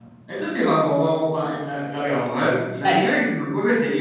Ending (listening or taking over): listening